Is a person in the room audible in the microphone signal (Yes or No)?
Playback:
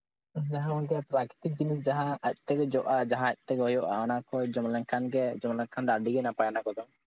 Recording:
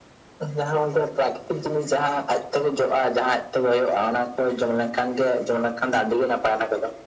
No